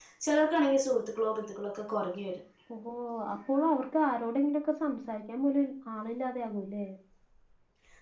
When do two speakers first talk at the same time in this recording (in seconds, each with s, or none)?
none